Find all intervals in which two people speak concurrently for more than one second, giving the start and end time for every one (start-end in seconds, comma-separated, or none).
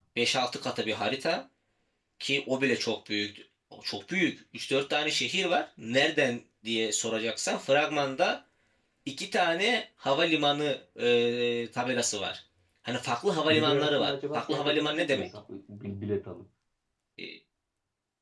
13.5-15.3